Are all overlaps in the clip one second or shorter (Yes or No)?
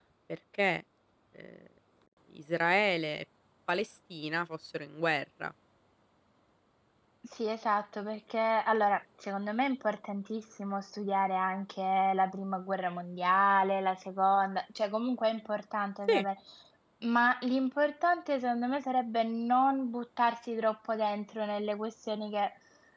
Yes